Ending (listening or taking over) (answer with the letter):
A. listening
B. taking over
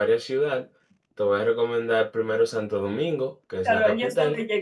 B